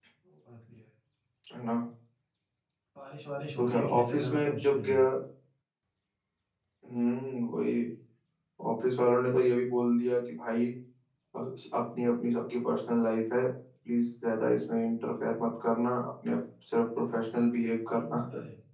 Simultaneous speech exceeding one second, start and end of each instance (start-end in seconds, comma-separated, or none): 3.6-5.0